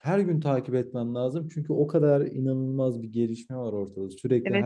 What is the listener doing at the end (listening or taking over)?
taking over